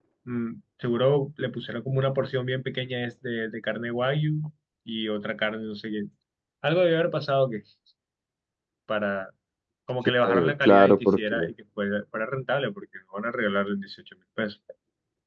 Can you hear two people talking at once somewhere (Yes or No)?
Yes